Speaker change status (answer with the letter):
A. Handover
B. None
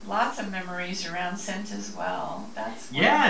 A